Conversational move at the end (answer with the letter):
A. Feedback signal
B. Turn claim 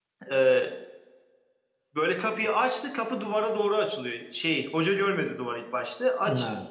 A